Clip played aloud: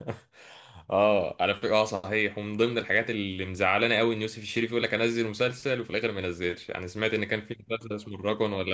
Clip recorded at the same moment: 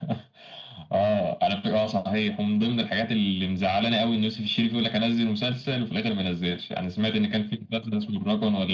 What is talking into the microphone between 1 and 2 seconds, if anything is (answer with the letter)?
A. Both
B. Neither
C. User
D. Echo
D